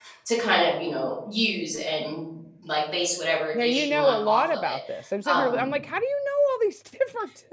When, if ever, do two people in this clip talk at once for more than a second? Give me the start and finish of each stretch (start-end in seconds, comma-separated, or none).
3.5-4.8